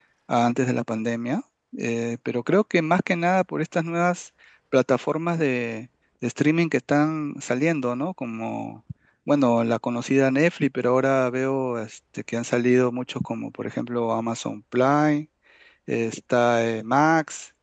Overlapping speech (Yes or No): No